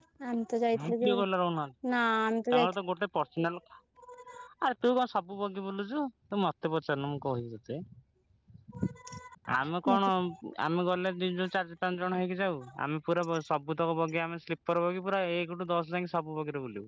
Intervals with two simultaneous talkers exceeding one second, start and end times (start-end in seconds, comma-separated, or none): none